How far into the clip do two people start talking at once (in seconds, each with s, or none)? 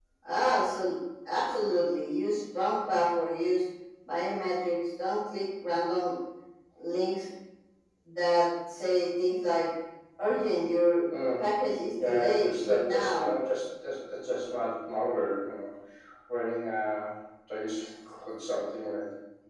12.0 s